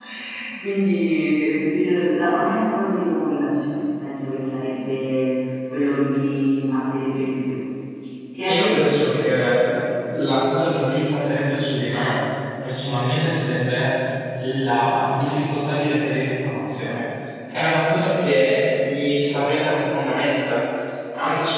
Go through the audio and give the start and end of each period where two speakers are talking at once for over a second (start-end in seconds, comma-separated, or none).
none